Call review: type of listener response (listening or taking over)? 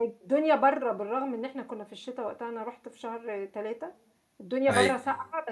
listening